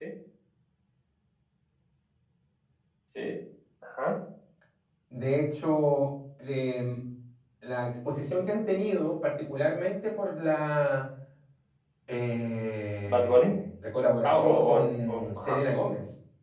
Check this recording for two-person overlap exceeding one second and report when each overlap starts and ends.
14.2-15.6

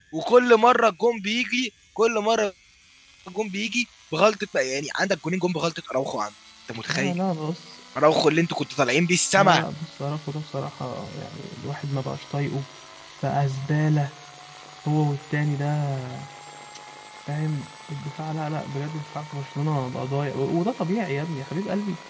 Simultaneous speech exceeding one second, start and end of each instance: none

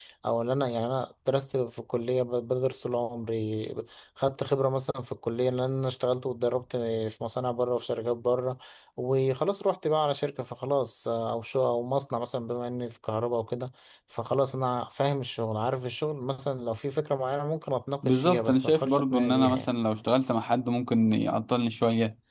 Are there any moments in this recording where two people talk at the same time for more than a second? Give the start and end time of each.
18.0-19.7

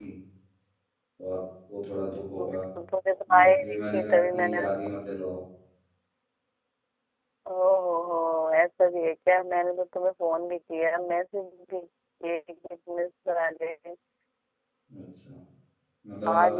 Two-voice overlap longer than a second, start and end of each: 3.3-4.6

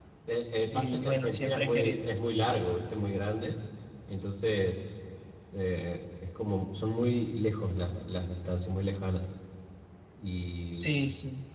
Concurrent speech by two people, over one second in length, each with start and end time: 0.7-2.0

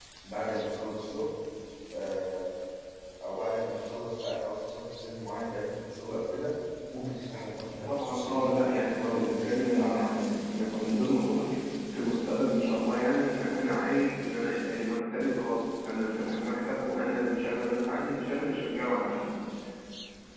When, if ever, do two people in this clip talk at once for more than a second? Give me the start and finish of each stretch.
7.9-11.0

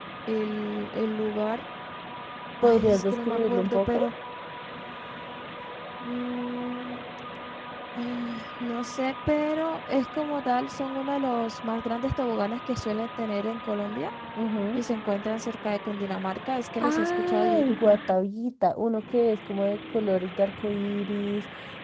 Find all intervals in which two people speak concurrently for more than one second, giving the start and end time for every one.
2.6-4.0, 16.8-18.2

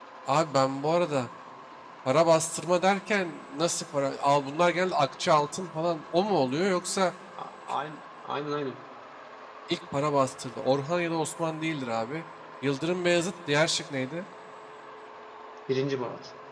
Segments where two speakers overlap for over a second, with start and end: none

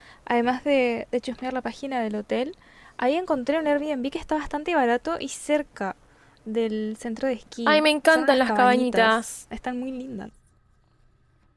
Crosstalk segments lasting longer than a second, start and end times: 7.7-9.3

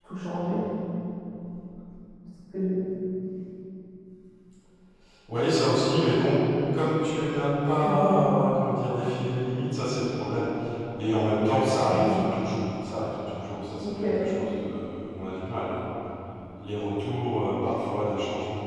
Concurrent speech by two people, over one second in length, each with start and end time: none

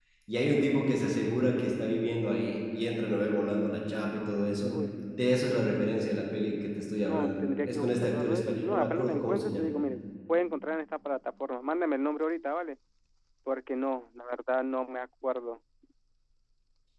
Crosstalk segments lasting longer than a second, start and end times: 7.0-9.7

